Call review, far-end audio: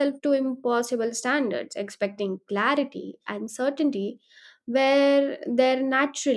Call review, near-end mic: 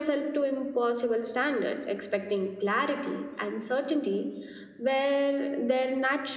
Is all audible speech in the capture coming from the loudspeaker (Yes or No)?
Yes